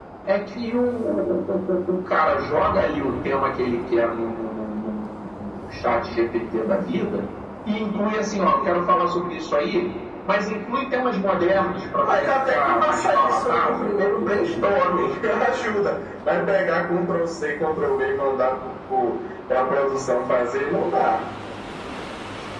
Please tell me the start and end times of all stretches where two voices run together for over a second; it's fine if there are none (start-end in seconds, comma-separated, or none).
12.0-14.8